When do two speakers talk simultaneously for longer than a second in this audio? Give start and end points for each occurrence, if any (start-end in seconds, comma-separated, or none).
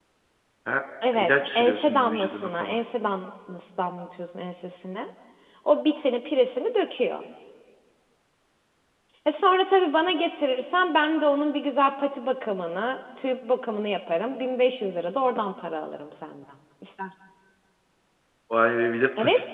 1.2-2.8